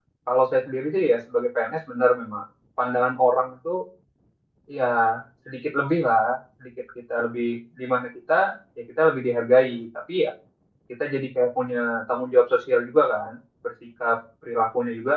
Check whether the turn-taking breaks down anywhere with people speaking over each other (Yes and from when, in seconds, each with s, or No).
No